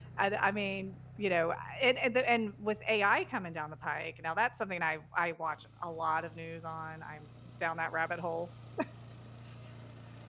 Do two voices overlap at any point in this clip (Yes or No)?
No